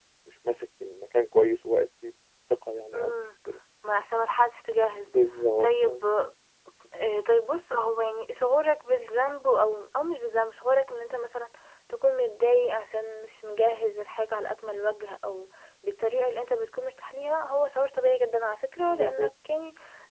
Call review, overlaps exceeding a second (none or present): none